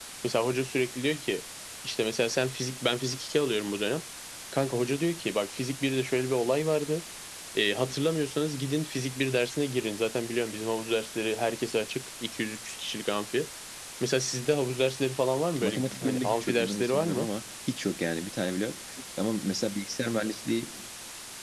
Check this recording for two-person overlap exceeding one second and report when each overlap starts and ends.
15.6-17.3

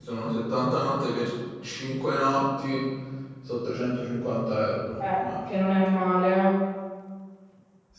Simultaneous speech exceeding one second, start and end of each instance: none

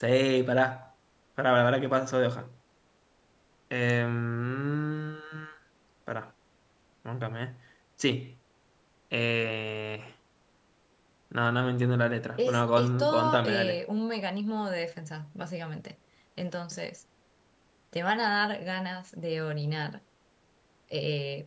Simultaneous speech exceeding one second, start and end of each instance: 12.4-13.8

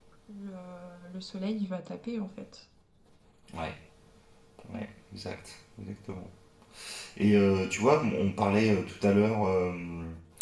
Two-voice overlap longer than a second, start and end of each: none

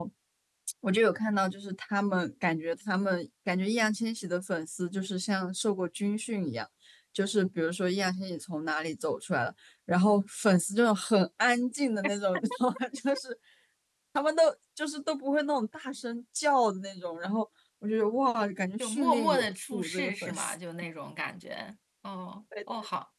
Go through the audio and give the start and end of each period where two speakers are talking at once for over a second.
18.8-20.6

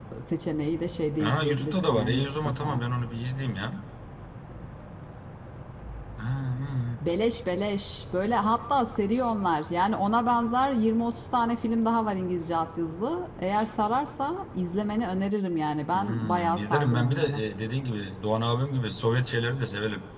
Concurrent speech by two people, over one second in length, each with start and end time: 1.2-2.8, 15.9-17.4

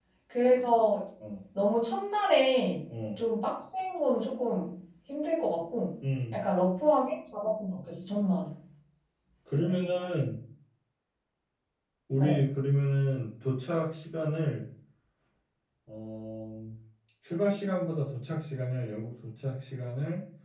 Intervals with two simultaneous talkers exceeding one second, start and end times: none

